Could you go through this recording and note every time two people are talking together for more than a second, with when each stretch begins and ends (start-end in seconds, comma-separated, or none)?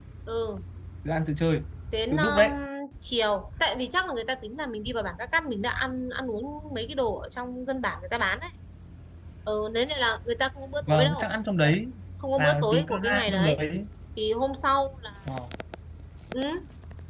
12.4-13.6